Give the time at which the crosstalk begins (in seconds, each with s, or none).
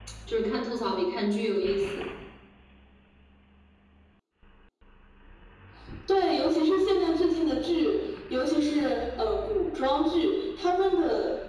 none